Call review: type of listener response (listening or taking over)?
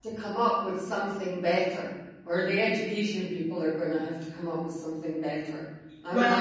listening